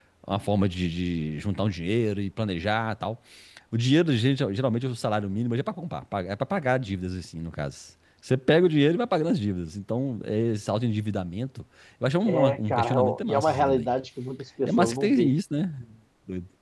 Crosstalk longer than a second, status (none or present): present